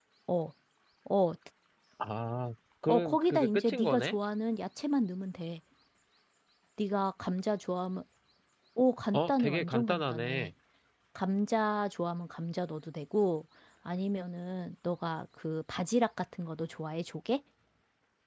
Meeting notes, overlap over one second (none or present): present